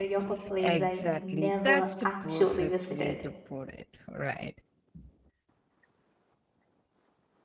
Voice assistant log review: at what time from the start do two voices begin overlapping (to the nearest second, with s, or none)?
1 s